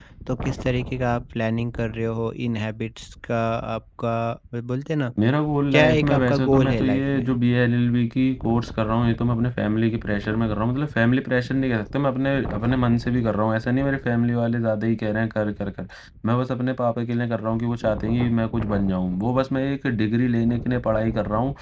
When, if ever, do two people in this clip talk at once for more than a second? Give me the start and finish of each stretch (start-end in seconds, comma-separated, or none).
5.7-7.3